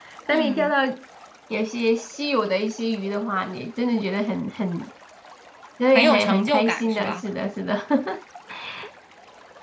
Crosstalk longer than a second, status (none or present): present